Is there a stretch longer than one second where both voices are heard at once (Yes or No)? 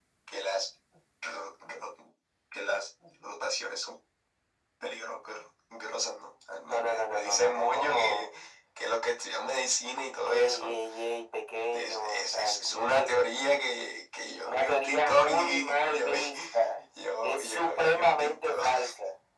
Yes